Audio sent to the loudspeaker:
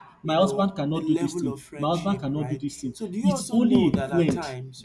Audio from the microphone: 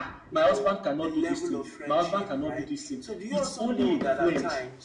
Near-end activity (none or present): none